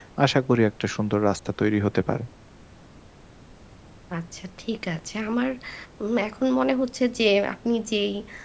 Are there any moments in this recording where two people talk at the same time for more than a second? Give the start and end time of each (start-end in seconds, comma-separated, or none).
none